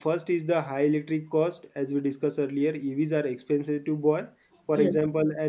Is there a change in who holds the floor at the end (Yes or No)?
No